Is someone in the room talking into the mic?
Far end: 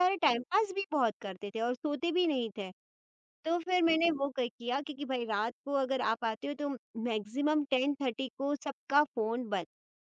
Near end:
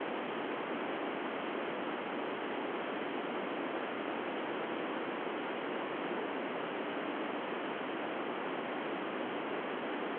No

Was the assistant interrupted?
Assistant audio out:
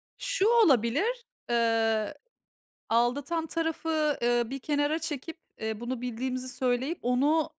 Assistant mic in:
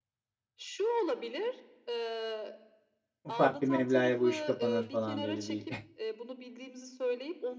Yes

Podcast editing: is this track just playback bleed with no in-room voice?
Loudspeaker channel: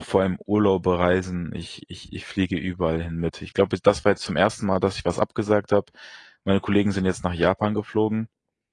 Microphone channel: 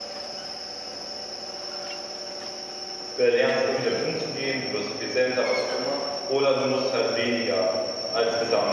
No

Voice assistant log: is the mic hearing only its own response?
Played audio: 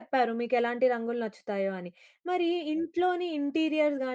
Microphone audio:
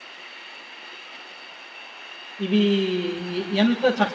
No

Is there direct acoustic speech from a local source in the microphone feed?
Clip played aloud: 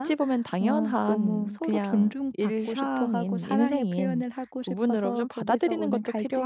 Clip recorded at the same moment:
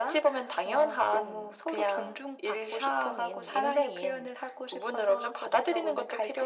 No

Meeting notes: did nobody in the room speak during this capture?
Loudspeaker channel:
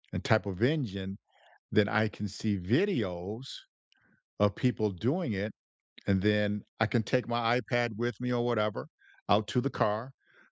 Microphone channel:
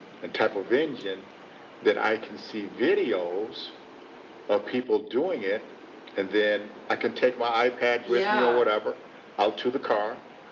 No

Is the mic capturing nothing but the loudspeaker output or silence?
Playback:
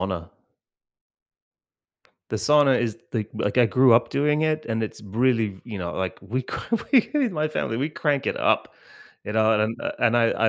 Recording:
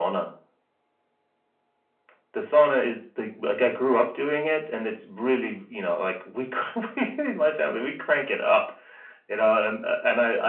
Yes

